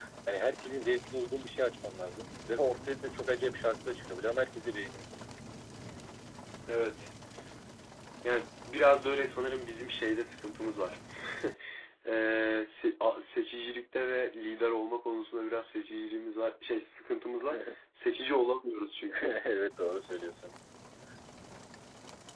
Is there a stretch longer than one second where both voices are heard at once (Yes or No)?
No